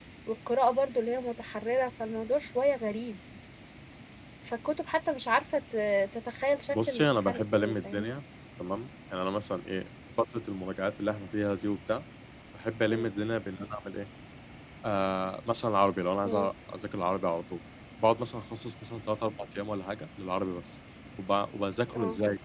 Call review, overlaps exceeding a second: present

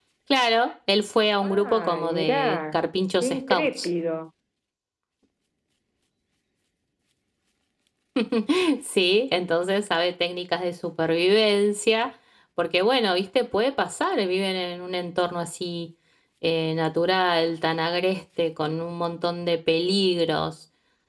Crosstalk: present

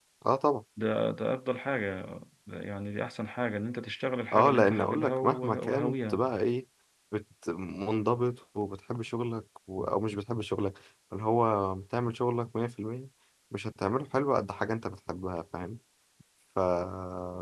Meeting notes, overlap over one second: present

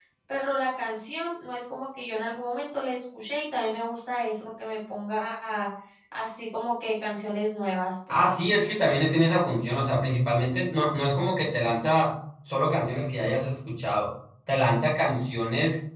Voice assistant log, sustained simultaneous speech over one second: none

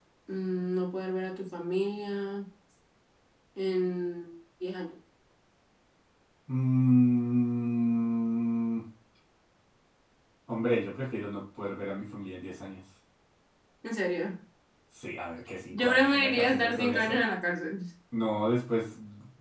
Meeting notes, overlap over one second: present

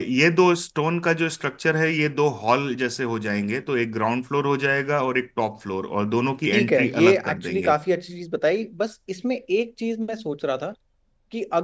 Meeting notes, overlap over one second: present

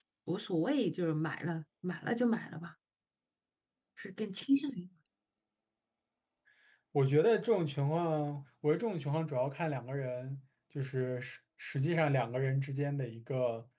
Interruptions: none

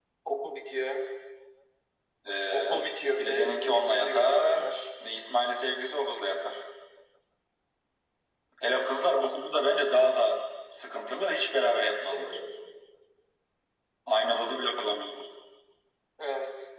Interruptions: present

